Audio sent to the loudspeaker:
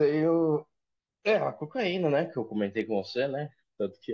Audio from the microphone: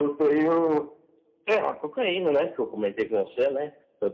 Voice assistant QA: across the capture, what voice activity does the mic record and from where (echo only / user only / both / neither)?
echo only